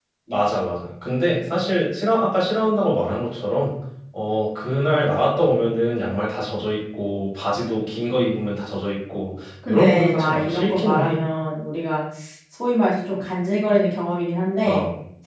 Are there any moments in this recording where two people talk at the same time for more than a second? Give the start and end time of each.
9.7-11.2

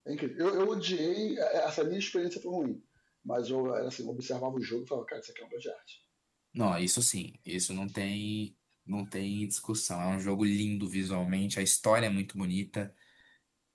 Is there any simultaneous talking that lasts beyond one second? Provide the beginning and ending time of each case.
none

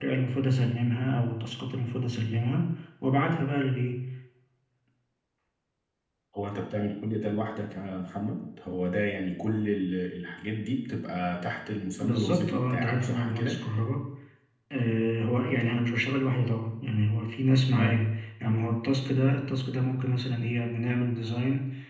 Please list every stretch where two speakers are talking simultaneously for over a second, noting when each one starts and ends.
12.0-13.6

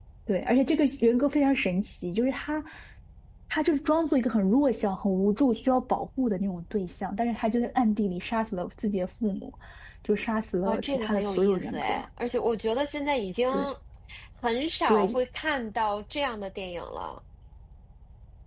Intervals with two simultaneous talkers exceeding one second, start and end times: 10.7-12.0

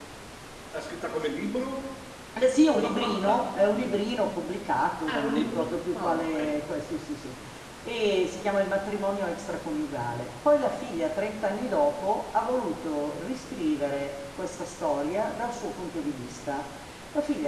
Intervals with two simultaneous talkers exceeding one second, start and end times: 2.7-4.2, 5.1-6.6

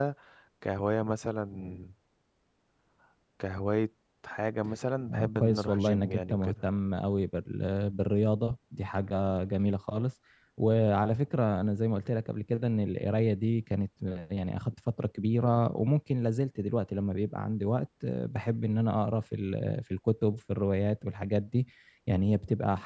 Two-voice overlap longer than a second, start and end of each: 5.1-6.5

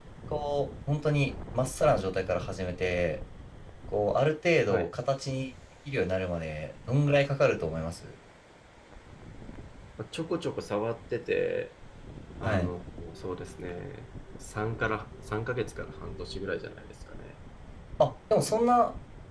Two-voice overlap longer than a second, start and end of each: none

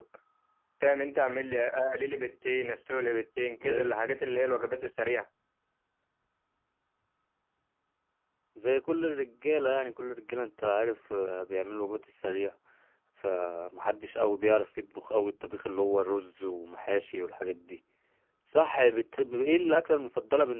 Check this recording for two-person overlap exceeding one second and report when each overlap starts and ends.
none

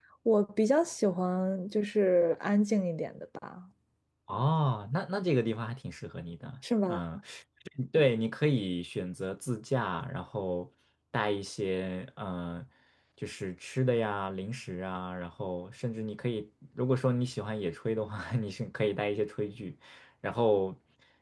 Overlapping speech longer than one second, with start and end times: none

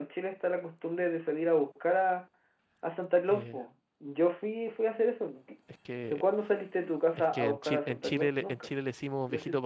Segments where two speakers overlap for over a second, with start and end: 7.2-8.7

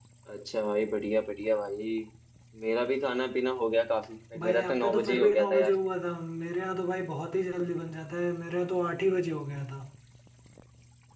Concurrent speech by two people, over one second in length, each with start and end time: 4.4-5.7

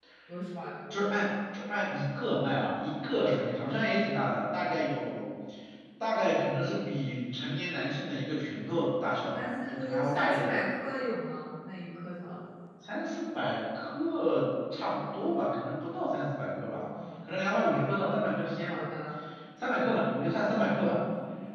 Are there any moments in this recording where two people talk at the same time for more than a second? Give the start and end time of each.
9.3-10.6

